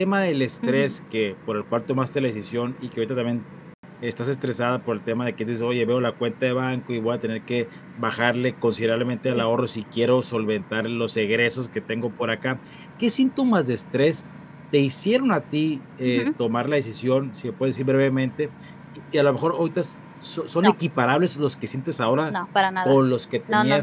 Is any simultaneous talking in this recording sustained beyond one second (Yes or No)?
No